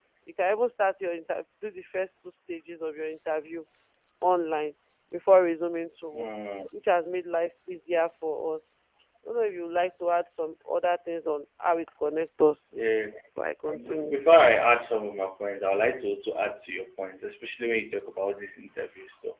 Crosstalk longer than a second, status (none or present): none